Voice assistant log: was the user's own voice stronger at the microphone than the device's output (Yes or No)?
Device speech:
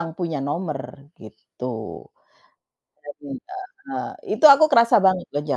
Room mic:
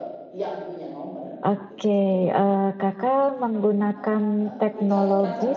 Yes